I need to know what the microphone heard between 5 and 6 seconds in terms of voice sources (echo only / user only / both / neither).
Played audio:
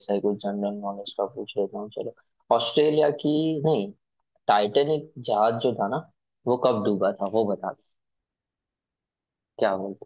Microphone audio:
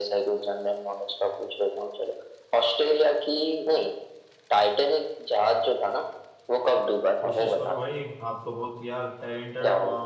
echo only